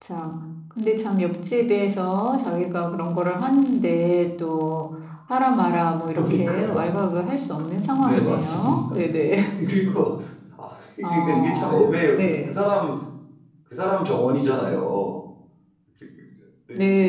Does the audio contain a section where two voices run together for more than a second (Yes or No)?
Yes